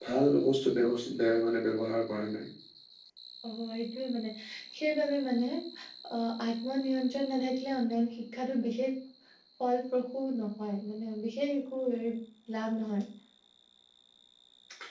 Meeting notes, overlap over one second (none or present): none